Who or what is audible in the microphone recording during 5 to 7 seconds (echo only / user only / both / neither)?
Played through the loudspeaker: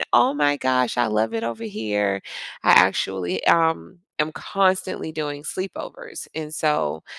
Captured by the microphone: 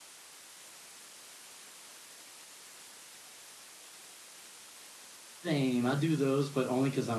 user only